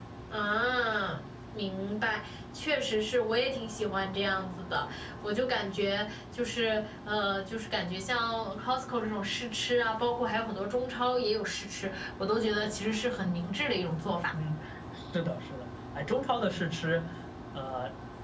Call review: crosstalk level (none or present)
none